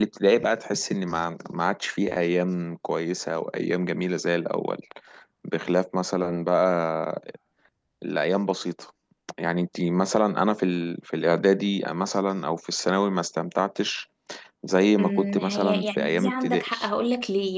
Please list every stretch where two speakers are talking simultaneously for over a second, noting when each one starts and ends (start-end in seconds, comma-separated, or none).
15.0-16.8